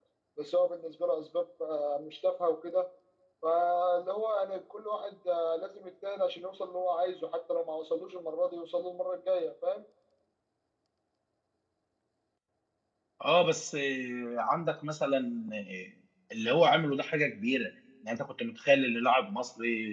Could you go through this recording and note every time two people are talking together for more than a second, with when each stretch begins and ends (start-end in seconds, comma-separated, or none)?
none